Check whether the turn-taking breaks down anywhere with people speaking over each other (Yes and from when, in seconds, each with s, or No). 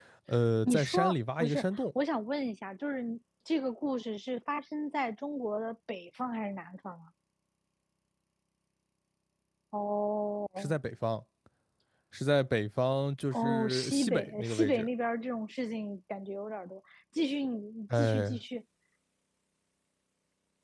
Yes, from 0.6 s